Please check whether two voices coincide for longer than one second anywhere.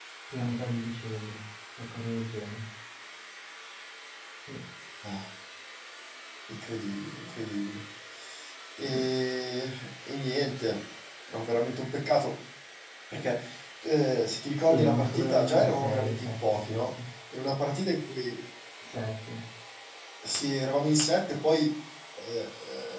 Yes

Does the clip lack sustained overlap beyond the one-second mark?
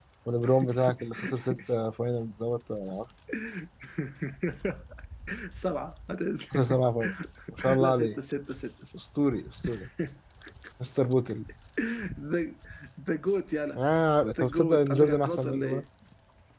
No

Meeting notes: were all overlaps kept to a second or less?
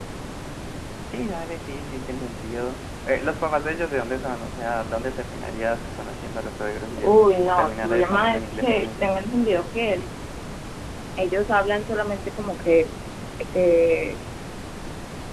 No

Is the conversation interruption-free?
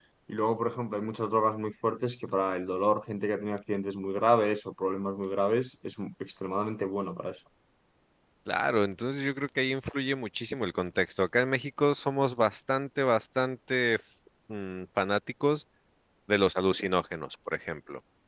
Yes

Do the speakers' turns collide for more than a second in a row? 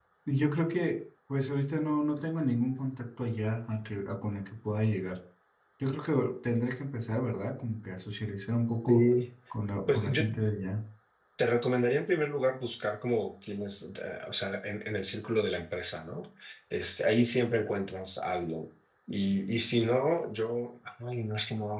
No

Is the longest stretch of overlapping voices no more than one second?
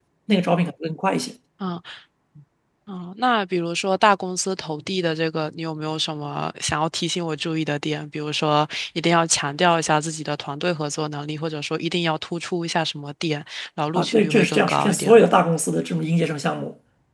No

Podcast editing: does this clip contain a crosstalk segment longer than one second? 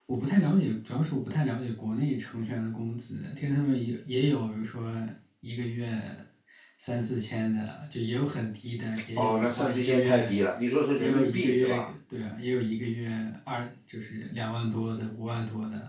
Yes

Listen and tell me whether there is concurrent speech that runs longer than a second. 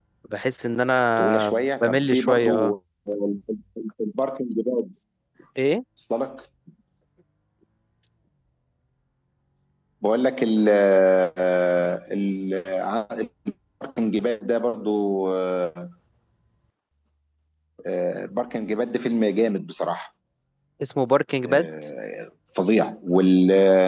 Yes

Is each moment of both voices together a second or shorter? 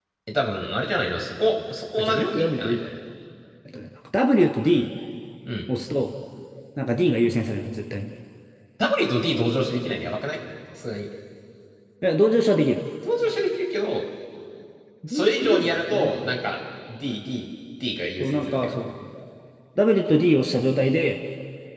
No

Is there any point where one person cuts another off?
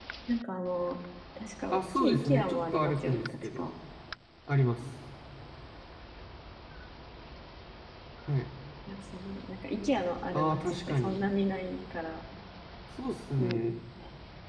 Yes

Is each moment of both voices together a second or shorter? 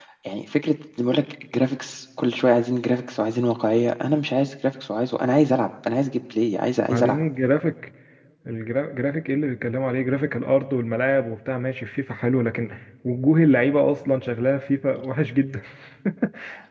Yes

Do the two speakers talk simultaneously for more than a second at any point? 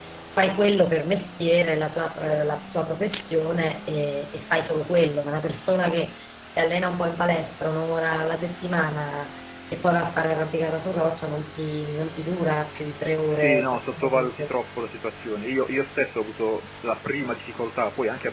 Yes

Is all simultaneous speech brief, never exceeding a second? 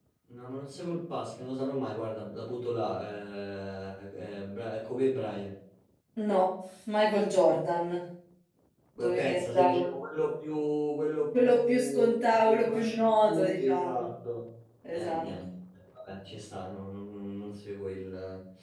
No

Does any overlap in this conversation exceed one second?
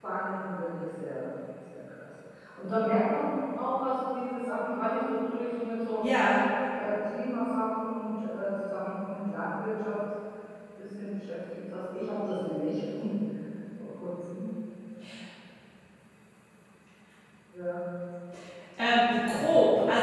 No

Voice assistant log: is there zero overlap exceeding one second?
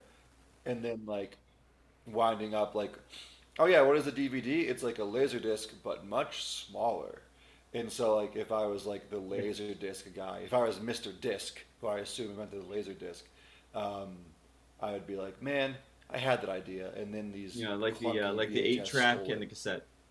No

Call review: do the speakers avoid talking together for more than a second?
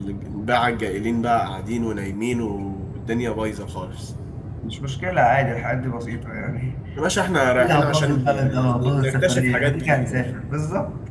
No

